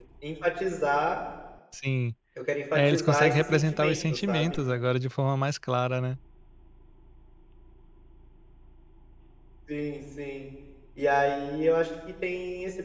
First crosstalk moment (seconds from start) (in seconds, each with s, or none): 2.7 s